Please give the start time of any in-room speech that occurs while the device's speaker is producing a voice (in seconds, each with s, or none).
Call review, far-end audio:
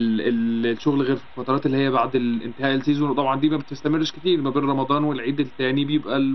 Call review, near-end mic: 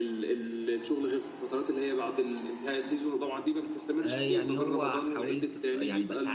4.0 s